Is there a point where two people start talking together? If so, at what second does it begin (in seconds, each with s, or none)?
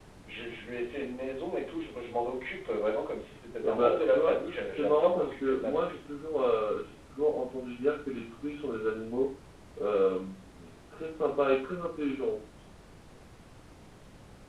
3.6 s